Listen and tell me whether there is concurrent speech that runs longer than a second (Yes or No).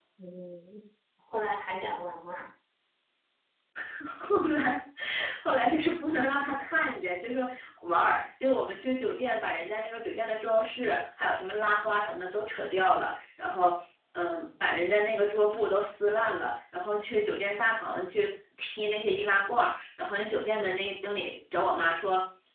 No